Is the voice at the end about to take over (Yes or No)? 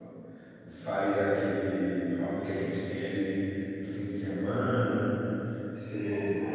No